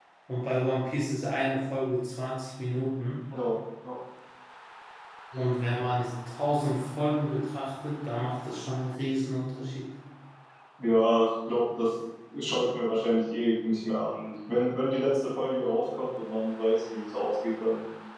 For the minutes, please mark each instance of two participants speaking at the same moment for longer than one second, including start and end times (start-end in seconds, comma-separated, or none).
none